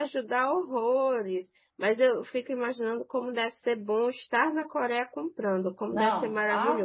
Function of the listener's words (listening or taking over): taking over